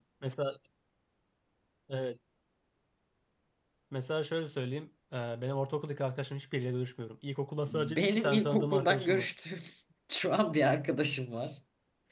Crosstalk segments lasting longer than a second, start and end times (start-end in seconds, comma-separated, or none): 7.6-9.3